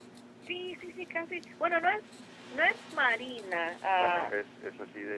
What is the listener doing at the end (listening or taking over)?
taking over